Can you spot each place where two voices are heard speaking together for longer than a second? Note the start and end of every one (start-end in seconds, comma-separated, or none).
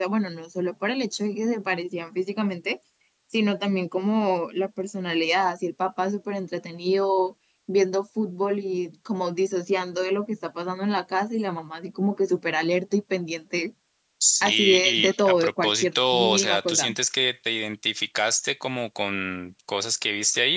14.4-16.9